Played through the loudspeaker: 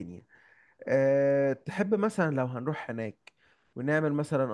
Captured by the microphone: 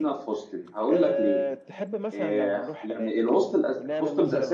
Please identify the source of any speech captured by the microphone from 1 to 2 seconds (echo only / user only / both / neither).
both